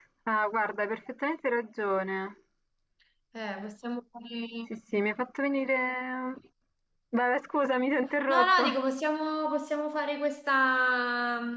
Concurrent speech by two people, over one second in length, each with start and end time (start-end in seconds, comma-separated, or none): none